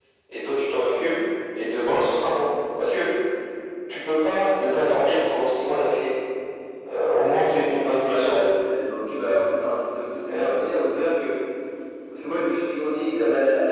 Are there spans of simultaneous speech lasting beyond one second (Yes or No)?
No